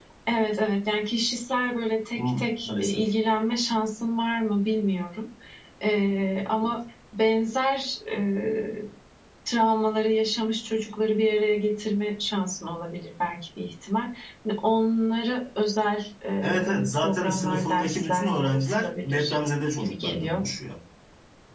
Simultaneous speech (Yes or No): Yes